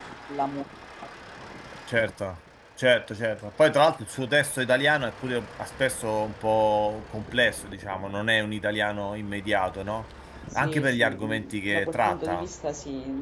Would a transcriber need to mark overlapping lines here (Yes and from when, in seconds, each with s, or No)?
Yes, from 10.5 s